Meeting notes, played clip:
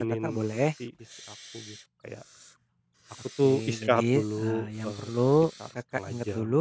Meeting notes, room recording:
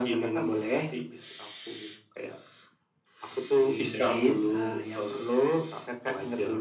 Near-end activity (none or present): none